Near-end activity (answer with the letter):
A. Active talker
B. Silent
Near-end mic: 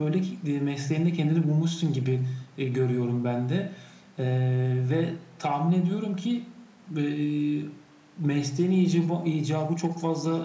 B